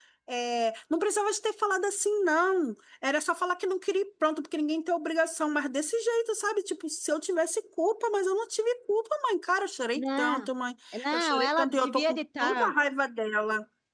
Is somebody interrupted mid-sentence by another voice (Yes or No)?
Yes